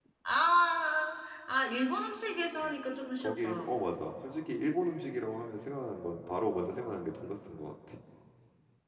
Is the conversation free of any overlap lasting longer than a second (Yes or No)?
Yes